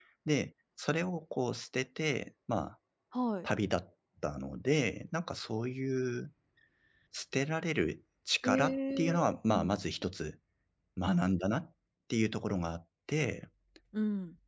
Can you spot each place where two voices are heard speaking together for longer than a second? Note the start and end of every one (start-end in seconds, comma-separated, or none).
8.4-9.8